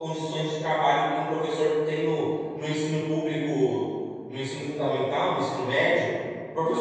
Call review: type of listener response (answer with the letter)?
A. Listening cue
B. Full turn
A